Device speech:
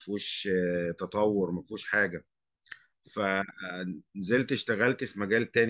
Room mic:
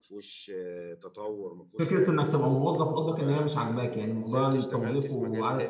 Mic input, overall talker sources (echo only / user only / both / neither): both